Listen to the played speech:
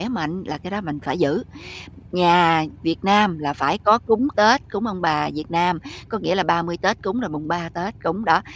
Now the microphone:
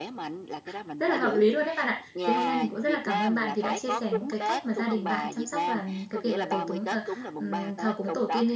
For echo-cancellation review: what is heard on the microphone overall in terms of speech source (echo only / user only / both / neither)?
both